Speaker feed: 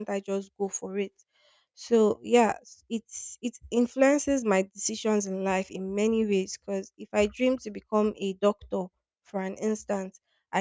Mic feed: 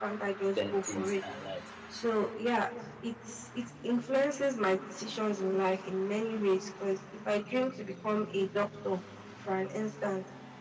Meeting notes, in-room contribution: present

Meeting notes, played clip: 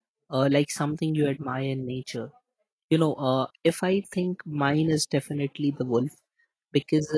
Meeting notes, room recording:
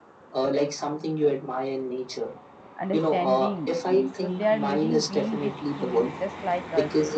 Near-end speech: present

